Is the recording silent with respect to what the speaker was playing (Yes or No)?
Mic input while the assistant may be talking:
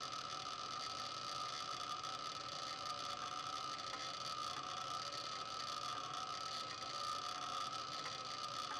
Yes